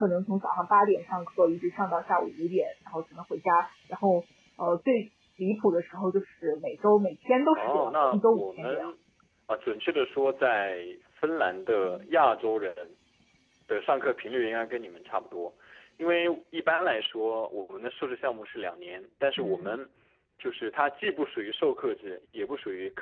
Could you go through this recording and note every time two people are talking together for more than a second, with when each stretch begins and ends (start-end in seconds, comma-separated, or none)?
7.5-8.9